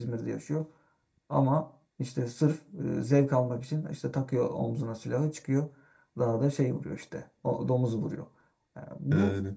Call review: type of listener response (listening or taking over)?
listening